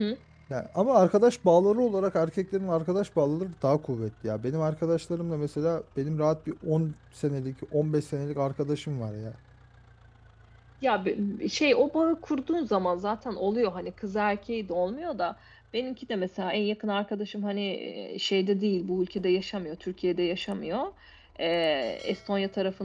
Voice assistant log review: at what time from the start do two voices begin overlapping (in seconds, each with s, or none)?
none